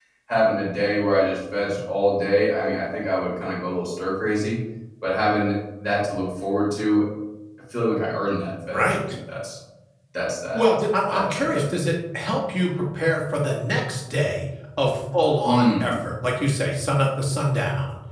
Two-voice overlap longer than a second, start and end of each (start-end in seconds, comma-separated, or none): none